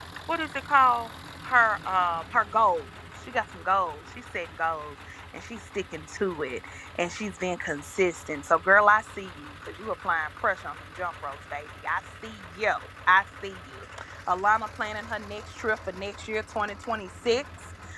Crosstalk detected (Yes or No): No